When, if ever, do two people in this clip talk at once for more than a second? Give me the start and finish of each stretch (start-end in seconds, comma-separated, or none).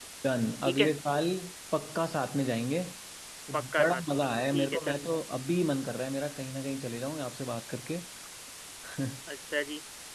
3.5-5.0